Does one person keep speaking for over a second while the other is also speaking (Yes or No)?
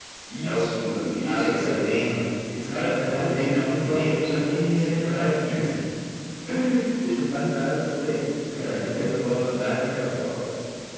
Yes